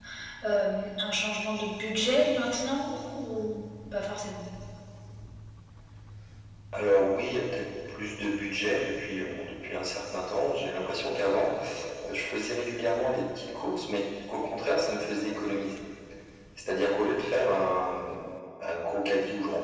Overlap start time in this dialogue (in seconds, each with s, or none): none